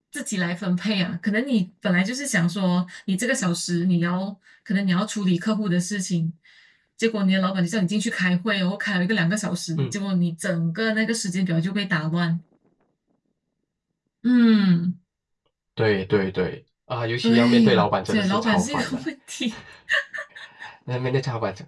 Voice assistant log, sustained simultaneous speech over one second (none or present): present